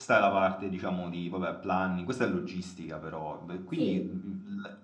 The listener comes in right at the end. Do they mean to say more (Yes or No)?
No